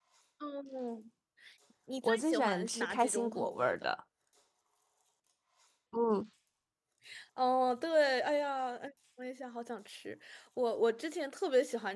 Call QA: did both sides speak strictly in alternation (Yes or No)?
No